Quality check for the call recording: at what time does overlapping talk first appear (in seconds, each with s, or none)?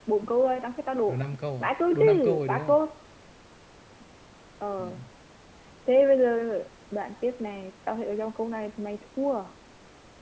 1.6 s